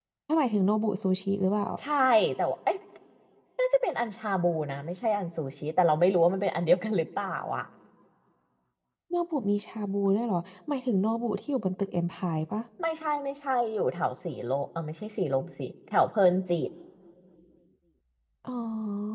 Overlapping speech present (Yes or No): No